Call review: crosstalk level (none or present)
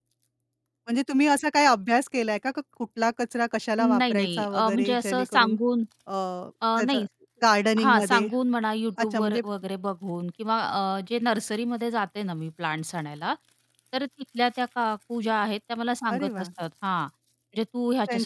present